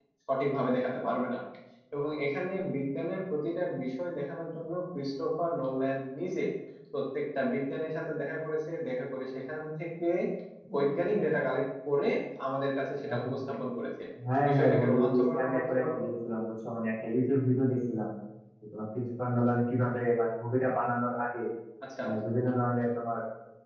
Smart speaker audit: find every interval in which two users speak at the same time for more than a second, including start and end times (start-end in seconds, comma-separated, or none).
14.5-16.1